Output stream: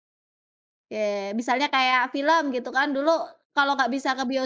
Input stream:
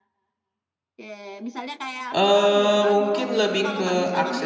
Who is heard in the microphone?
both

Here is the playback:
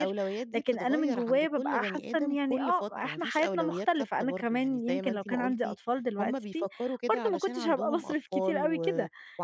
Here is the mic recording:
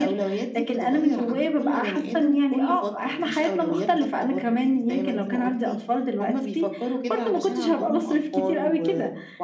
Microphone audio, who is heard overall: echo only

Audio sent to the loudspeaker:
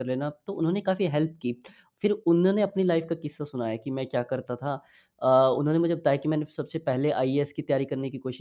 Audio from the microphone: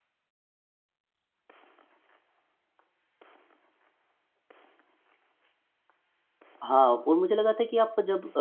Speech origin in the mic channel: user only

